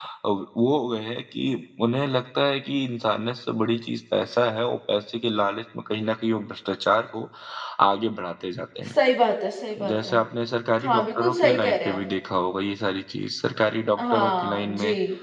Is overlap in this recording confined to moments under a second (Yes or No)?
No